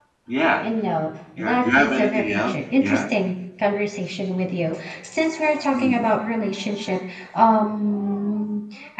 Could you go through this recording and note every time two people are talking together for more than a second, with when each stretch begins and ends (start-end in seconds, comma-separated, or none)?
1.4-3.0